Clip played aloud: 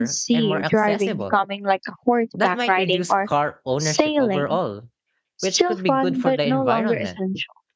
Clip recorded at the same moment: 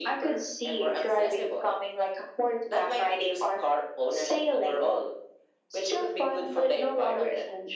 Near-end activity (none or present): none